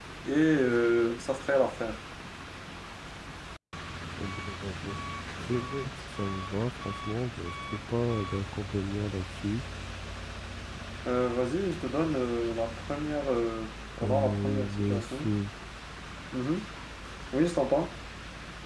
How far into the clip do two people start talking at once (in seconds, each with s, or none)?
14.0 s